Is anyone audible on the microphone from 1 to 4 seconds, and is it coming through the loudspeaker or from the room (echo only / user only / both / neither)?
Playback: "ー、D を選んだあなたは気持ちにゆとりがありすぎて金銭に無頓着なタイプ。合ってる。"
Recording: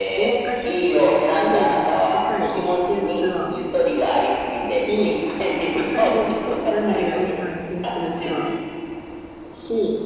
both